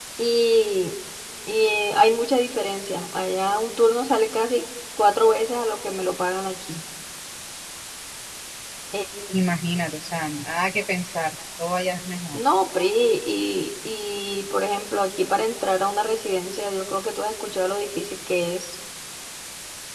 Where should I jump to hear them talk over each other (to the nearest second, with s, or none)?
none